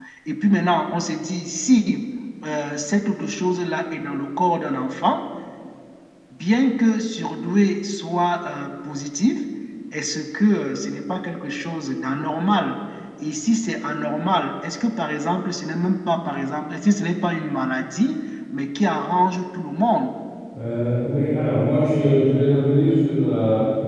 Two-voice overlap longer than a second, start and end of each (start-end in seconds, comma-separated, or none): none